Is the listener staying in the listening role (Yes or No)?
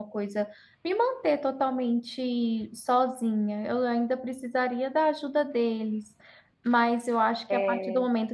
Yes